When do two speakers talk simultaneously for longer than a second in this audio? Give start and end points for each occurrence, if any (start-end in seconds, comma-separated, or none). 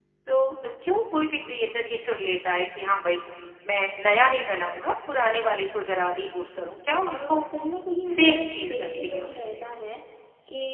8.2-9.4